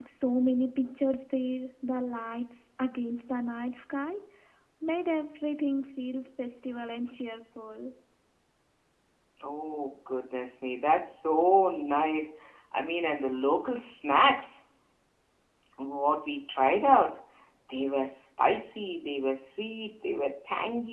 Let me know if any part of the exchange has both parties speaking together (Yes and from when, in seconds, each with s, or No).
No